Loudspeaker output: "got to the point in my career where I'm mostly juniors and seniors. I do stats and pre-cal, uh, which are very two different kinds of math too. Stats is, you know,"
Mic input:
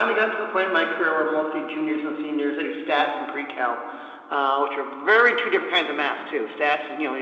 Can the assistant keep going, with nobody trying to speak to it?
Yes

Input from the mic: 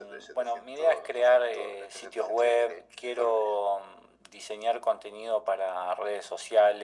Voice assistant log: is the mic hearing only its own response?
Yes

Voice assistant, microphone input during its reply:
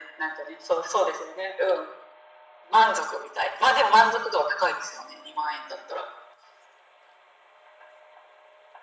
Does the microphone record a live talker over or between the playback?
No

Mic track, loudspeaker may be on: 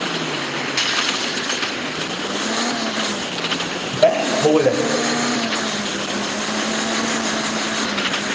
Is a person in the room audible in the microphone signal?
Yes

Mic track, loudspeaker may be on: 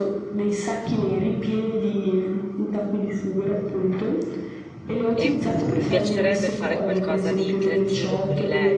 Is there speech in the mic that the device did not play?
Yes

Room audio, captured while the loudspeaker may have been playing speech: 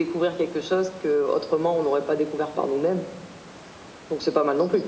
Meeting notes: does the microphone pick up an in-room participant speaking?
No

